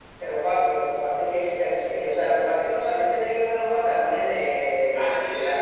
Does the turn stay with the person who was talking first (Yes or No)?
No